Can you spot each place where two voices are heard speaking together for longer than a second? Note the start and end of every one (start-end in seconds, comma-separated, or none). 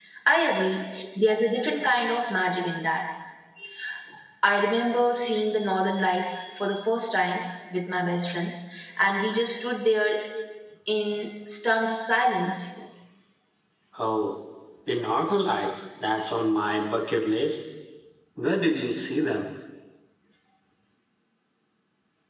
none